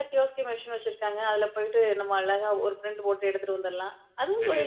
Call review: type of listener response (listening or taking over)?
taking over